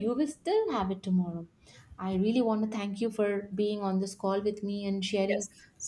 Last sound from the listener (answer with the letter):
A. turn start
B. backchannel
B